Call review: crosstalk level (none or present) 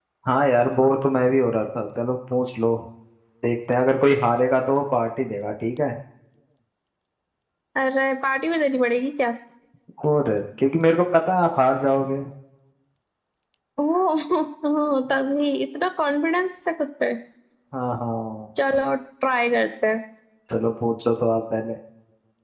none